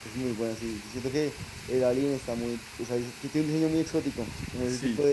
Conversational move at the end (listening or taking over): listening